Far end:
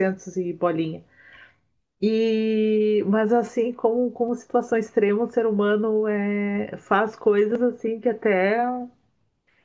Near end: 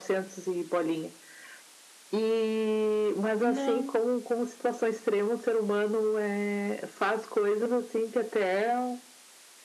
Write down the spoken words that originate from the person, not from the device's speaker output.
Não.

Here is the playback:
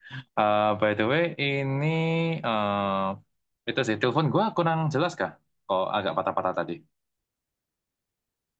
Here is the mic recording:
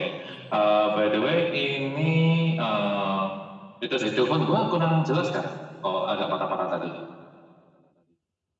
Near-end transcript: none

